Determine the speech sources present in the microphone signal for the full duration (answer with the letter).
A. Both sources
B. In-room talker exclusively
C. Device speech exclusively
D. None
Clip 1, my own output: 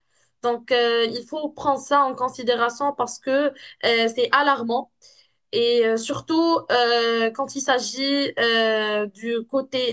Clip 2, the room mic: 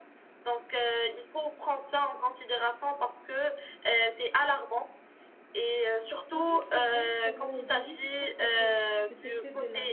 A